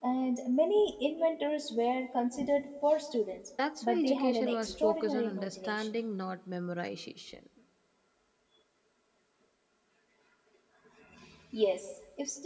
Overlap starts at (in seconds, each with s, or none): 3.6 s